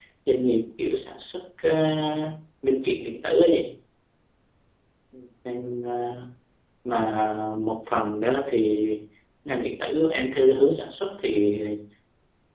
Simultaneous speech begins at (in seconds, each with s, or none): none